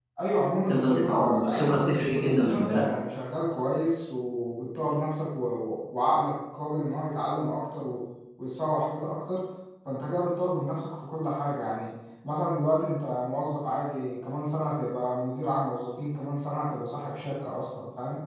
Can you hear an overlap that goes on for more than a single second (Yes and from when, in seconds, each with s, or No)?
Yes, from 0.7 s